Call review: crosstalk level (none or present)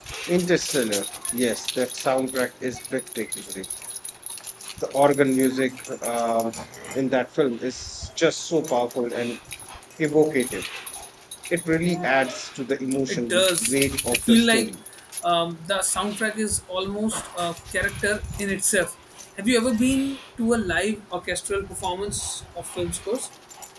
present